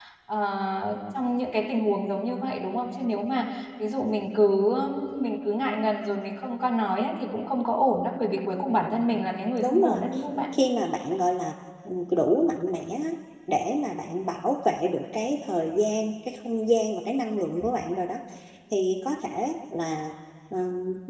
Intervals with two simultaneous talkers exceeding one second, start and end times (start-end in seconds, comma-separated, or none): none